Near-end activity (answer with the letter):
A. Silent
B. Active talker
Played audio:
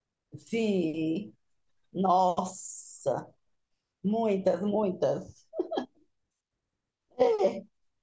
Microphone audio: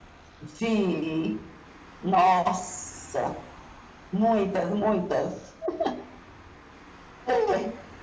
A